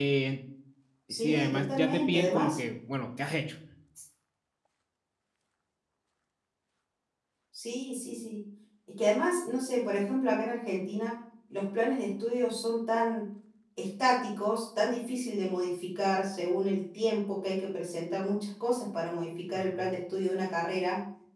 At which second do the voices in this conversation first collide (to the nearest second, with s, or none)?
1 s